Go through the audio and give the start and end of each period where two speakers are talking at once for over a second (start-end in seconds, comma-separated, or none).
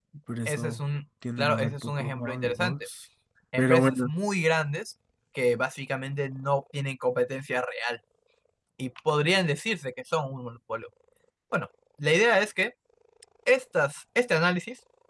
1.4-2.9